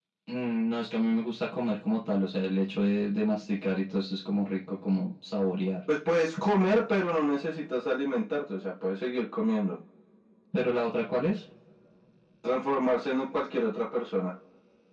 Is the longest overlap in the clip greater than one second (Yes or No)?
No